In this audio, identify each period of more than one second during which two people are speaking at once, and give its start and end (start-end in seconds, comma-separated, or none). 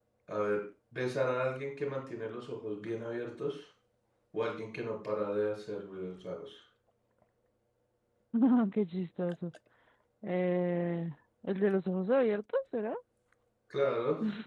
none